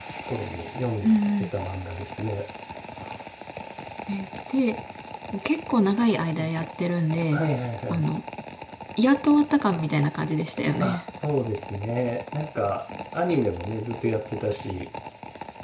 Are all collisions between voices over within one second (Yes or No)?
Yes